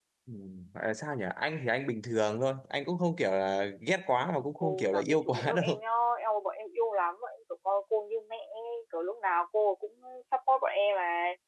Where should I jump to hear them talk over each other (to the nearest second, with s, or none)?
5 s